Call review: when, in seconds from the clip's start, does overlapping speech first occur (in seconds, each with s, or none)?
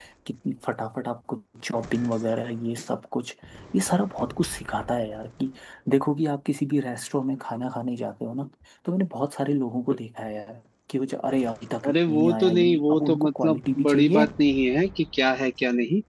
11.8 s